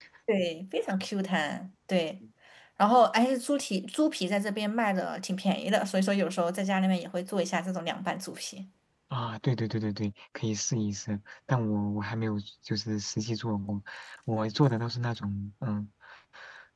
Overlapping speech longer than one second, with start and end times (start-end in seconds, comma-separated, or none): none